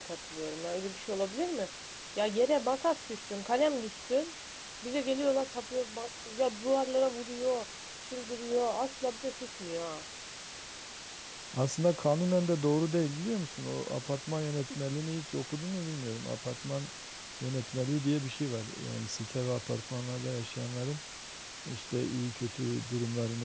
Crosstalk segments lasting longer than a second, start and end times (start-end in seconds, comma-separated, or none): none